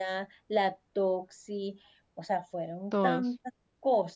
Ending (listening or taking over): listening